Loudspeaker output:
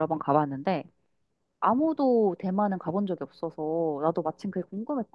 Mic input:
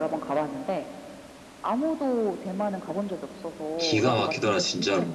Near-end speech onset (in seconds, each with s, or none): 3.8 s